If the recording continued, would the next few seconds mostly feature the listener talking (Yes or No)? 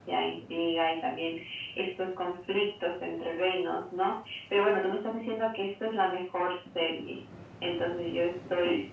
No